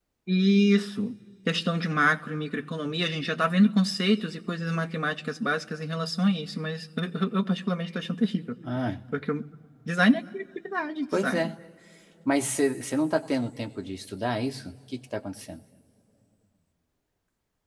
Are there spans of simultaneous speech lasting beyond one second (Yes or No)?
No